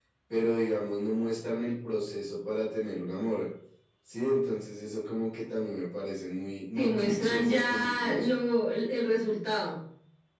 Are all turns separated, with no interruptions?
No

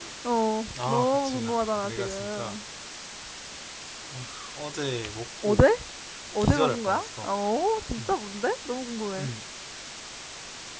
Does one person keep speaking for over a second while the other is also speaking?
Yes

